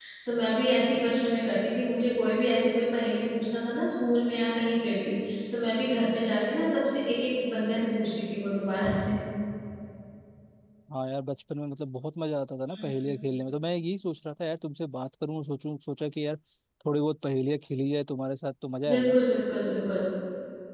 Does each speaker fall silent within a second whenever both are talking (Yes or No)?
Yes